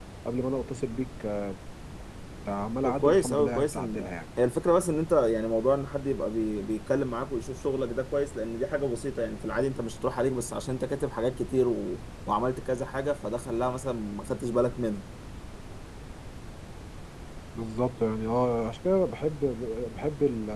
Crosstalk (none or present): present